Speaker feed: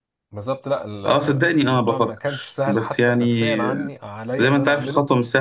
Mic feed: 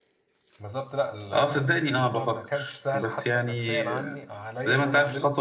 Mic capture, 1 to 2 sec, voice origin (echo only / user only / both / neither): echo only